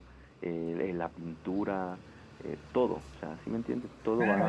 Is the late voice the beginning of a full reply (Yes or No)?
Yes